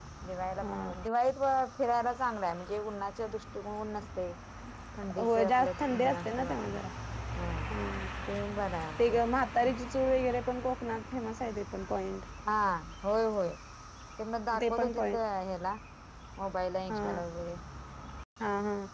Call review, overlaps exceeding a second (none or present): present